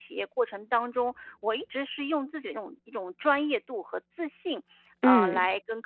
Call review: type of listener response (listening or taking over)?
listening